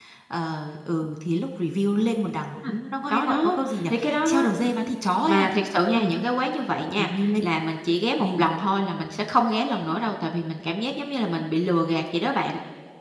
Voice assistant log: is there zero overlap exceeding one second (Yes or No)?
No